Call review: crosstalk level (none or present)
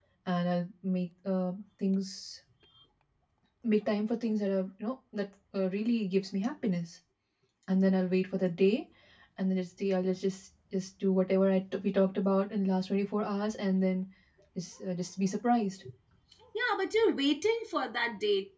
none